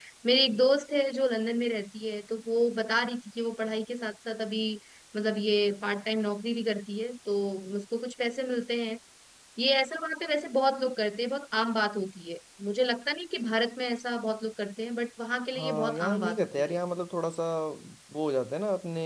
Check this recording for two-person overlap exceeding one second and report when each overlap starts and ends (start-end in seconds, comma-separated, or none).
15.6-16.8